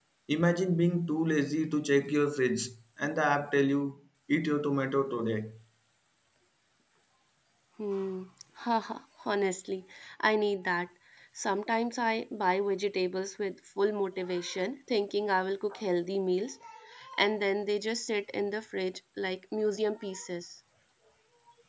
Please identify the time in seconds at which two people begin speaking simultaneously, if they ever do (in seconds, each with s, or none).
none